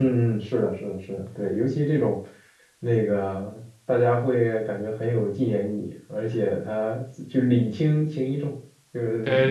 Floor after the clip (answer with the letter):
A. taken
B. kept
A